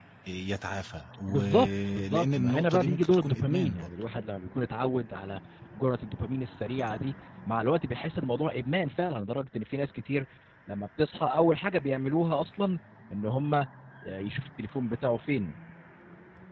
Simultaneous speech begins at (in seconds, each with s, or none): 1.3 s